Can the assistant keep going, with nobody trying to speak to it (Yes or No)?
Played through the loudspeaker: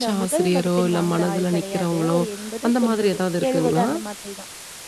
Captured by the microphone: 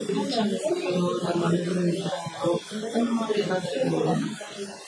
Yes